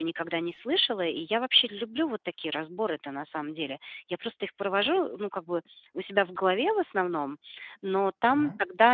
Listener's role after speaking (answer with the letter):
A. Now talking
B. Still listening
B